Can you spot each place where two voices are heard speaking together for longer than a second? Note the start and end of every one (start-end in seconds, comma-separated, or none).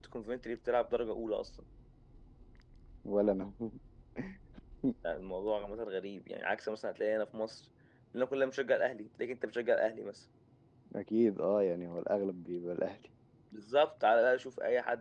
none